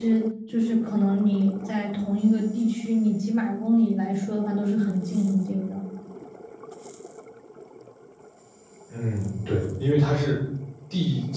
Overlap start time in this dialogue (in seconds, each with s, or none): none